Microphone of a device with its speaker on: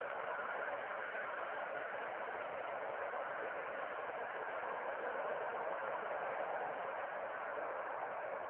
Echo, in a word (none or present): none